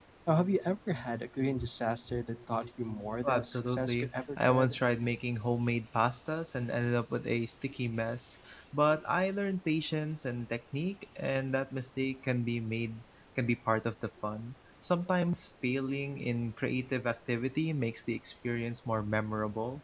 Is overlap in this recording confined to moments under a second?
No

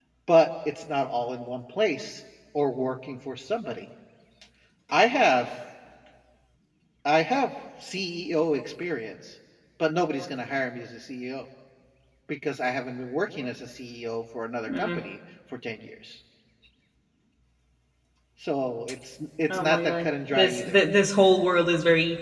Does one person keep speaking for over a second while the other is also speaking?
Yes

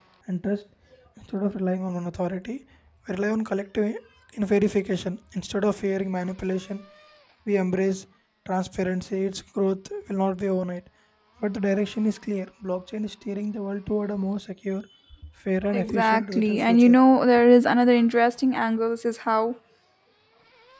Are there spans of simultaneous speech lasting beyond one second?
Yes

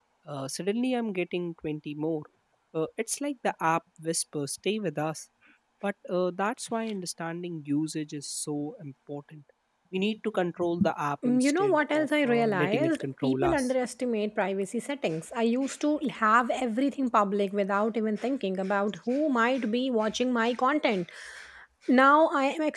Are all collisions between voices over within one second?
No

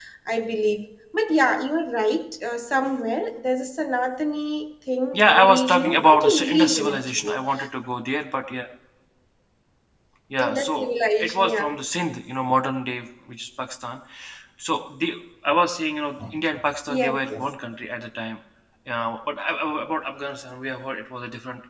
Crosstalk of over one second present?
Yes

